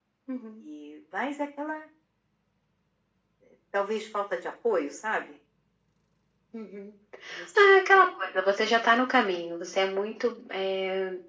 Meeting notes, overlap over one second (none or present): none